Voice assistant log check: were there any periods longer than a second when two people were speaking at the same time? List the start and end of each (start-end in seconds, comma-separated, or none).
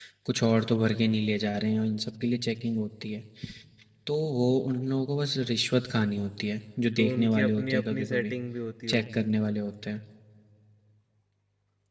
7.0-8.3